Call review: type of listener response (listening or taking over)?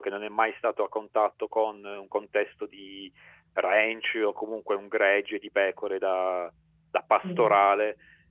listening